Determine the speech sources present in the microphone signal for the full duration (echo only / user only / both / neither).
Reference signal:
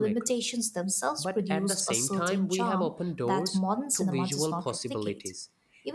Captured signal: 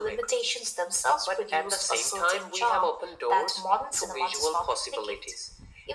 echo only